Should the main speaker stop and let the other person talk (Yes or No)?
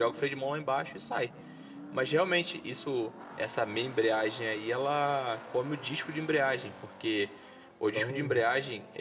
No